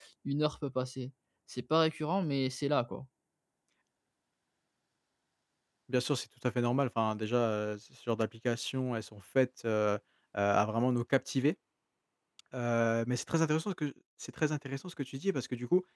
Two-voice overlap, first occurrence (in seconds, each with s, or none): none